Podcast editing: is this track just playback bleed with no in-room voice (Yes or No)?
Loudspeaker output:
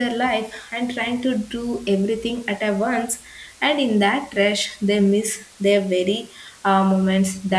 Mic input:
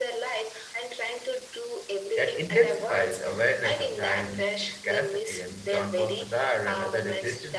No